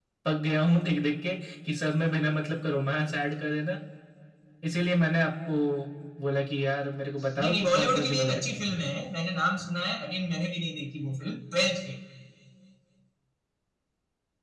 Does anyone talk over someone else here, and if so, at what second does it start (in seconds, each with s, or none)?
7.4 s